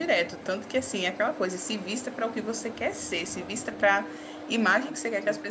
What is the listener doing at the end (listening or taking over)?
listening